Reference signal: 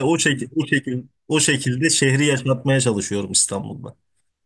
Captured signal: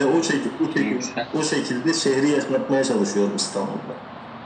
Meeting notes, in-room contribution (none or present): present